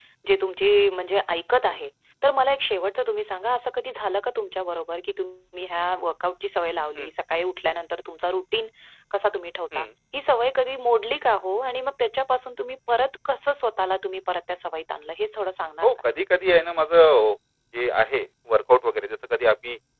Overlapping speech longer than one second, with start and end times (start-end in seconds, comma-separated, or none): none